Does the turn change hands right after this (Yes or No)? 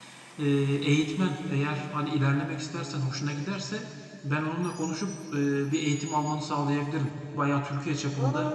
No